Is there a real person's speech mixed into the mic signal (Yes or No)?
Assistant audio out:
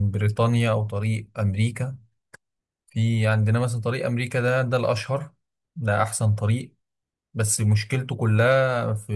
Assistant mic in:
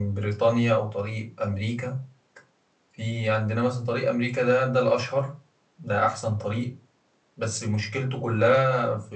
No